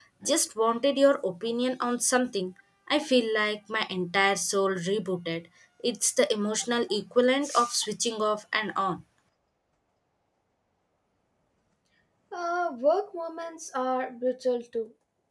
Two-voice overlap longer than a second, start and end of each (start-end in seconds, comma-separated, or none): none